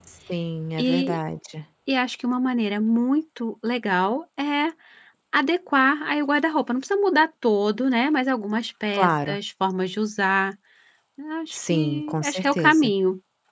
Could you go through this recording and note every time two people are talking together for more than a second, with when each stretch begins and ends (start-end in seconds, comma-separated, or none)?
11.5-12.9